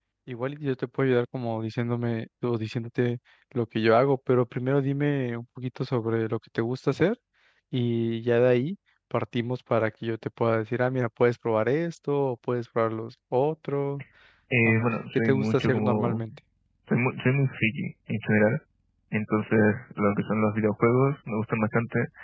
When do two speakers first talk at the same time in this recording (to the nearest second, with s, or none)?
15 s